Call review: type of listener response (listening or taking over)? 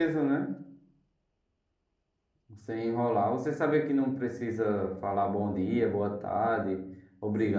taking over